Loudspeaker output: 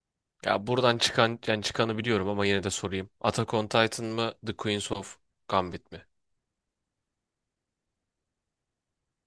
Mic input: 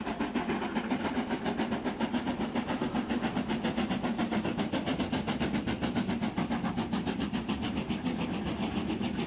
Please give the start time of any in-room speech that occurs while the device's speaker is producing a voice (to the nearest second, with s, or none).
none